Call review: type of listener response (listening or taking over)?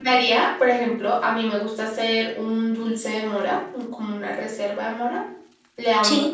listening